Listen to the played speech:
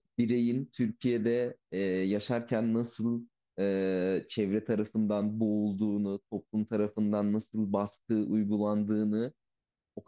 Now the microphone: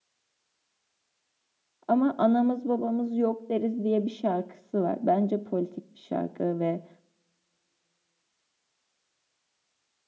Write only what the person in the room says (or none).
Ama anamız babamız yok deriz diye bir şarkısı var. Bence politik bir şarkı ve